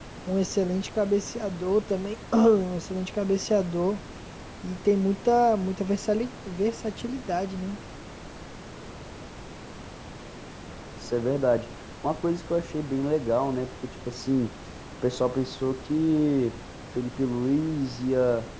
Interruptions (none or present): none